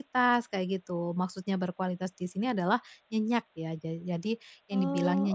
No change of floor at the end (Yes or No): Yes